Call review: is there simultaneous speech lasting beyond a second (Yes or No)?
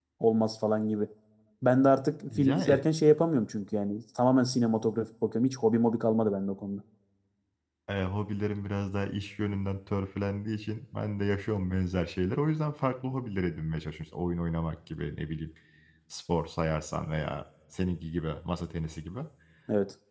No